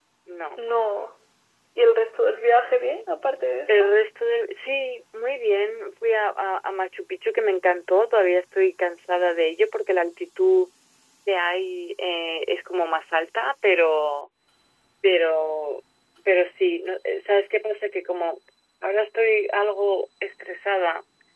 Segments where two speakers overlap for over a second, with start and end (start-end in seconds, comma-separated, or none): none